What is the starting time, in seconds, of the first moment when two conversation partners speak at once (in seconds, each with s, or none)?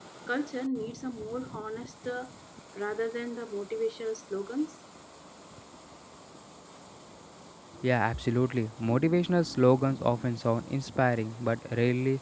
none